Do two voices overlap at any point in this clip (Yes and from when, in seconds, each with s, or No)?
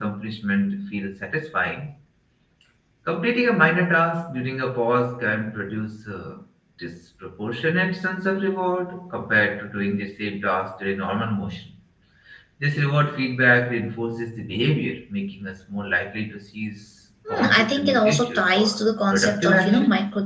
Yes, from 17.2 s